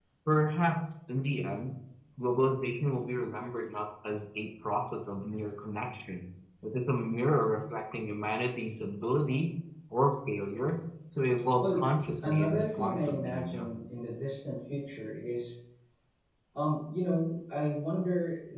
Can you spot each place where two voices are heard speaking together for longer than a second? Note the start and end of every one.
12.2-13.7

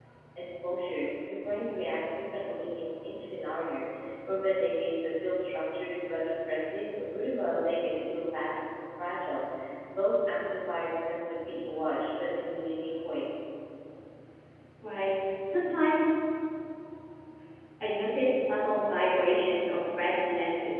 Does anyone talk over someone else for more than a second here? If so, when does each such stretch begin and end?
none

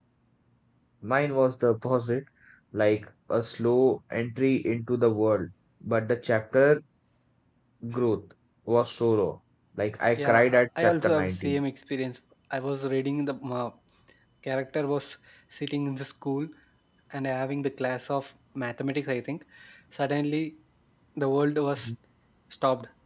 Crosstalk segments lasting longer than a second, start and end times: 10.2-11.6

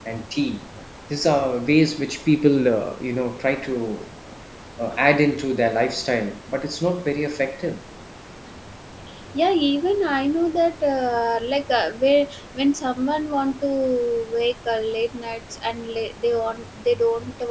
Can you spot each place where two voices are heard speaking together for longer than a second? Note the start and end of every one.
none

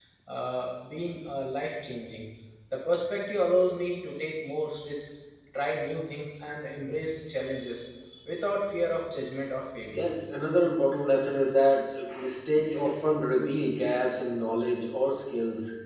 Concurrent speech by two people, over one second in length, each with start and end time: none

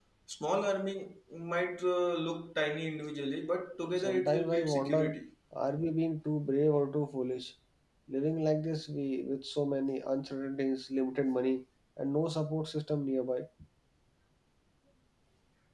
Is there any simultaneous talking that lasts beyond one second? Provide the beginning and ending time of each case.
4.0-5.2

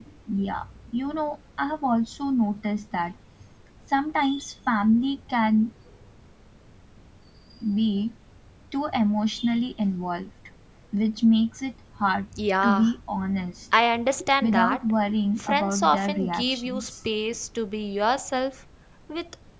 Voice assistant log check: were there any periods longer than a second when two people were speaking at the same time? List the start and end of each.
15.4-16.9

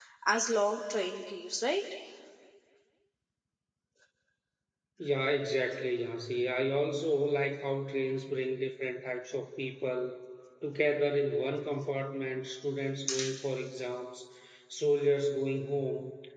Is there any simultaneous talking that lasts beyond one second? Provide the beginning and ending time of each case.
none

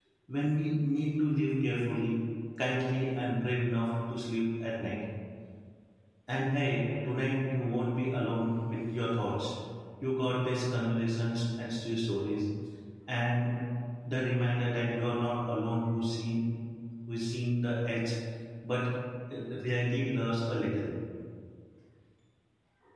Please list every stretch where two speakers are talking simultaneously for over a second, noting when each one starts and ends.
none

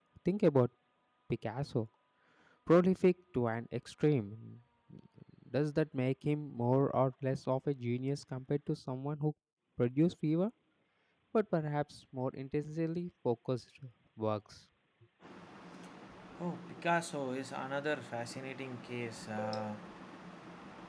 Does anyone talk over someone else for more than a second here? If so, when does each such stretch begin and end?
none

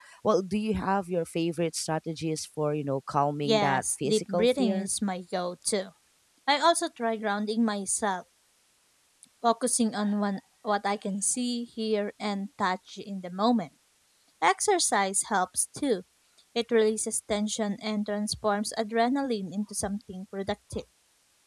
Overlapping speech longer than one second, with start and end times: 3.4-4.9

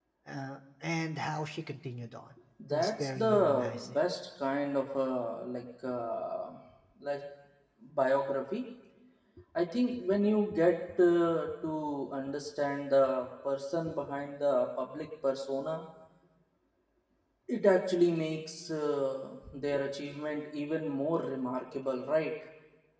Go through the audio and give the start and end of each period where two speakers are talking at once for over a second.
2.7-4.0

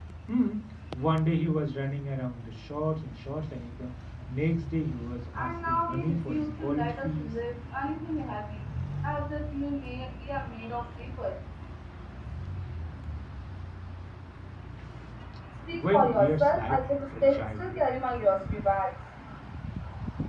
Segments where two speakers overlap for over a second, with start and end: 5.4-7.3, 15.7-17.7

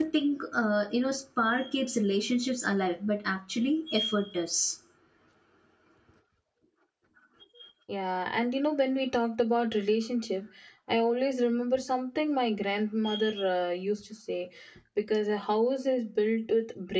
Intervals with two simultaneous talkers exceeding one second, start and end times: none

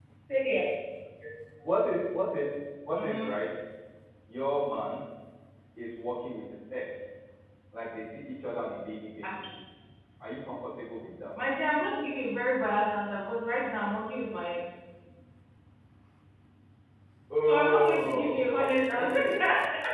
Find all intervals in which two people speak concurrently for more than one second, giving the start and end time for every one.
17.4-19.2

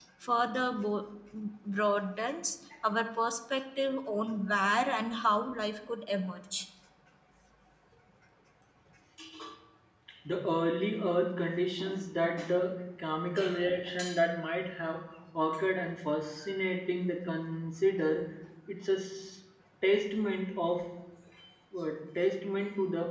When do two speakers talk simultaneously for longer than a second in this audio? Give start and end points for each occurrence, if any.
none

